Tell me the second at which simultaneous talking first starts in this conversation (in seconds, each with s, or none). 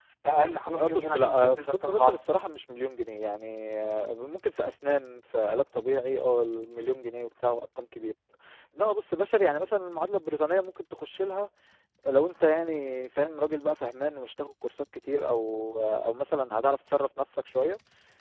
0.8 s